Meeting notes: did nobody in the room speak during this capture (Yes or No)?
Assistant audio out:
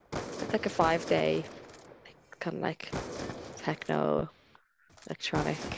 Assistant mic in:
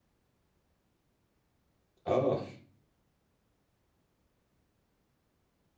No